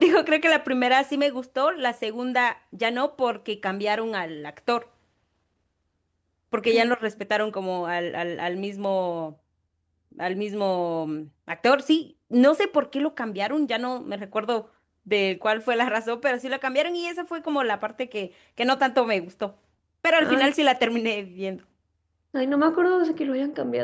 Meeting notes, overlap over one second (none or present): none